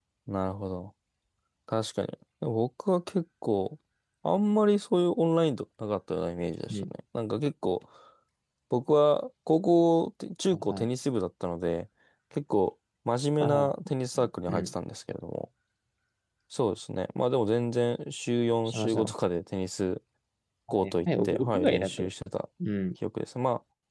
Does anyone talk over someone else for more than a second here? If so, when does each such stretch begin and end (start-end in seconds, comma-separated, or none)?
20.7-22.0